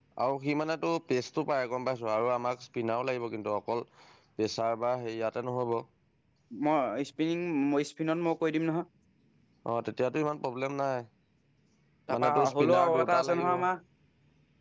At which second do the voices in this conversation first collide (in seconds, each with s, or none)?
12.1 s